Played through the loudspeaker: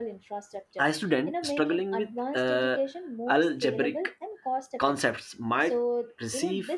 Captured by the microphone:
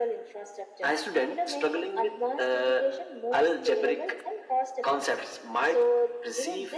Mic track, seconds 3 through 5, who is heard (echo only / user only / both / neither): echo only